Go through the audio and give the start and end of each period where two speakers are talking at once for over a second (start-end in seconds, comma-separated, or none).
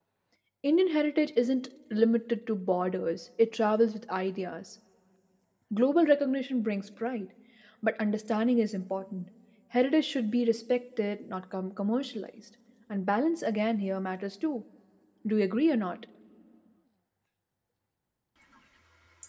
none